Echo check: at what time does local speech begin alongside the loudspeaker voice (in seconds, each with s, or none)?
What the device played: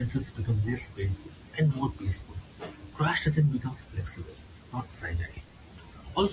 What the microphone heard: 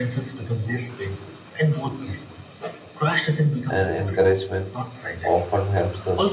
3.7 s